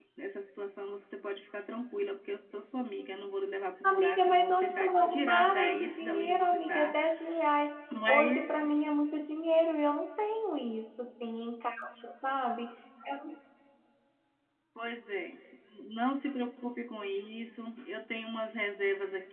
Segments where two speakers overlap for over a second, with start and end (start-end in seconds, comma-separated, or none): 3.8-7.0